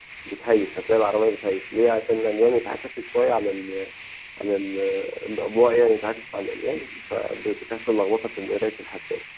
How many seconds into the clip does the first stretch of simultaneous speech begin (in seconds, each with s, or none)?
none